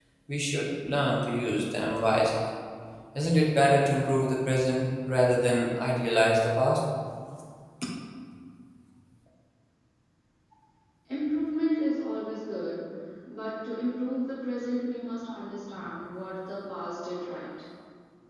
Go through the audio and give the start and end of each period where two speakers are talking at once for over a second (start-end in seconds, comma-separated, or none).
none